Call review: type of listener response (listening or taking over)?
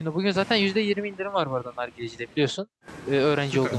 taking over